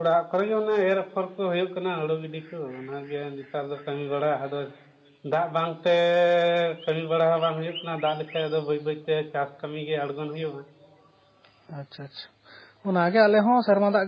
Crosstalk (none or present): none